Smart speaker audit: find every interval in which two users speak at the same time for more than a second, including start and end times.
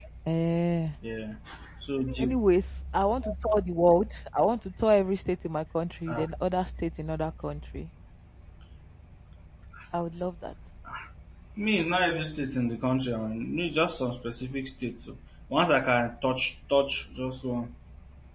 none

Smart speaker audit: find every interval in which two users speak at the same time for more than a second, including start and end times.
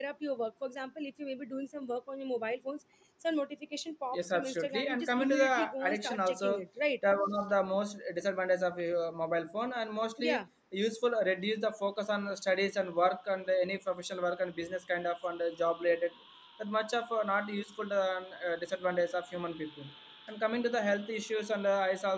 4.1-6.6

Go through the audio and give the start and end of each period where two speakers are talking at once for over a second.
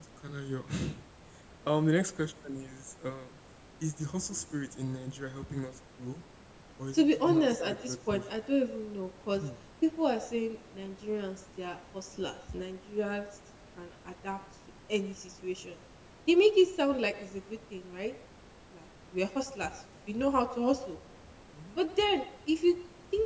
6.9-8.4

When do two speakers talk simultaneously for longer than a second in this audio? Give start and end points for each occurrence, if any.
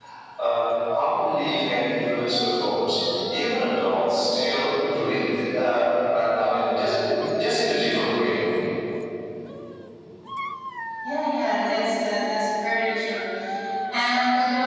none

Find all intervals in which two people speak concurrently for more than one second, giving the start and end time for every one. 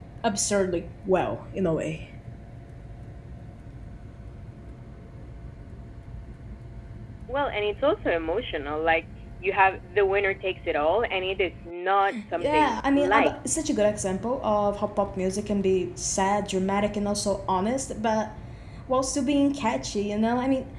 12.3-13.6

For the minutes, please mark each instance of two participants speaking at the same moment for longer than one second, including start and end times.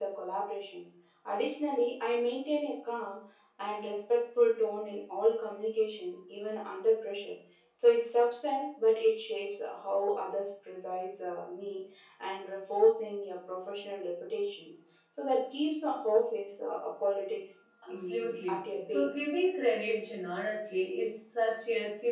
17.9-19.1

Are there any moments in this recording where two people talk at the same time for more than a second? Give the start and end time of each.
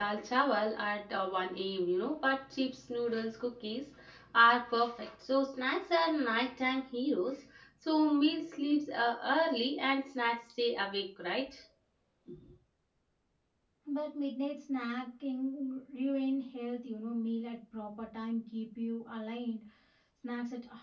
none

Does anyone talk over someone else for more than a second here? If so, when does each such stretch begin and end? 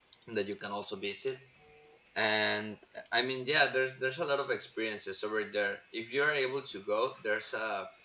none

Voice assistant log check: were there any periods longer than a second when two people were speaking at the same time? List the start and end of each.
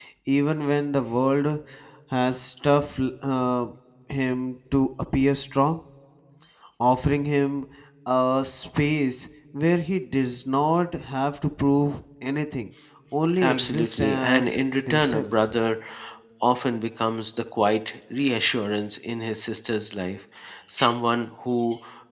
13.4-15.4

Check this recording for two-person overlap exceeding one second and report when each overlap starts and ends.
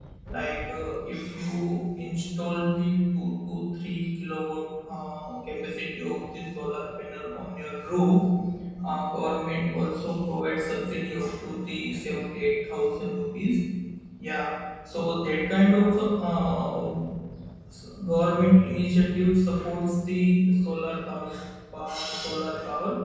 none

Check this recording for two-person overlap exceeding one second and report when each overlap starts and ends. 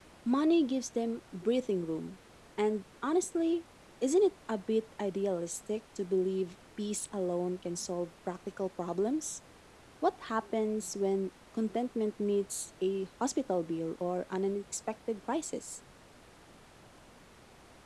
none

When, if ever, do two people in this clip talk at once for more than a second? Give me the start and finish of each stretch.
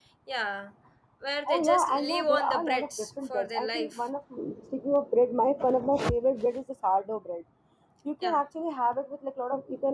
1.5-4.0

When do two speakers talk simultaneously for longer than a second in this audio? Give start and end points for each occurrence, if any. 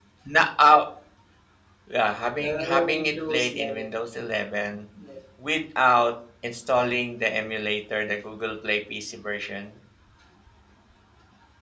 2.4-3.8

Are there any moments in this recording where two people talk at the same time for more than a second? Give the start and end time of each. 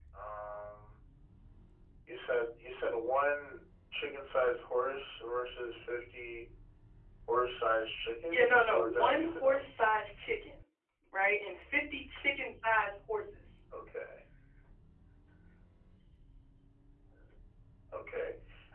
8.3-9.6

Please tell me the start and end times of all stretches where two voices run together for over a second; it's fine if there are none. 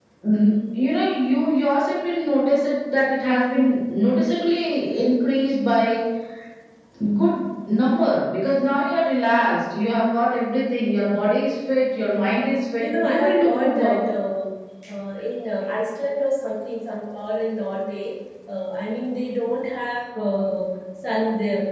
12.8-14.0

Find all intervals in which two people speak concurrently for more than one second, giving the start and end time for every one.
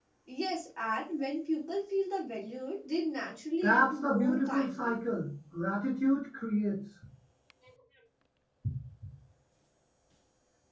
3.6-5.0

